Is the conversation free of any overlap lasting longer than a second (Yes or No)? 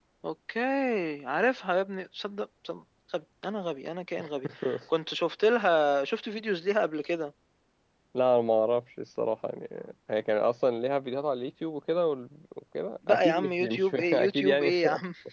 No